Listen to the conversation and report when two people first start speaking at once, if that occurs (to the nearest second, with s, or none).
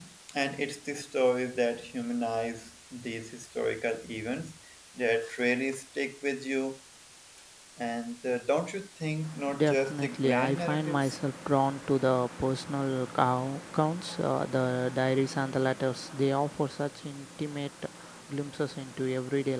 9 s